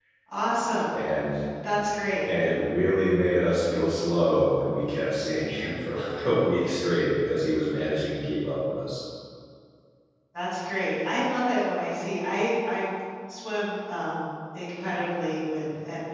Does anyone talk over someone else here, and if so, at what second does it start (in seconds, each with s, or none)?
none